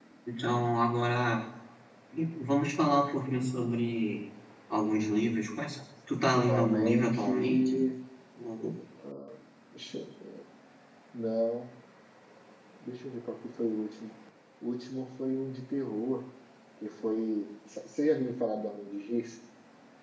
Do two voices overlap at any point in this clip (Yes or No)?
Yes